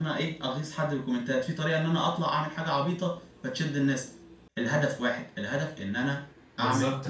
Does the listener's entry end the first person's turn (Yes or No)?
Yes